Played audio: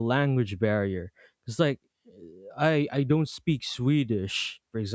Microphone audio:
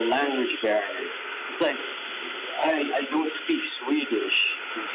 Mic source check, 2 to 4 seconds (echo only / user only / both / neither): echo only